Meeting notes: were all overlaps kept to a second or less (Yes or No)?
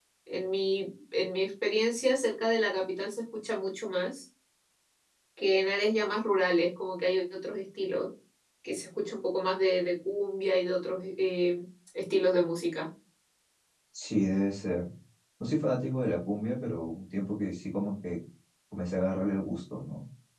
Yes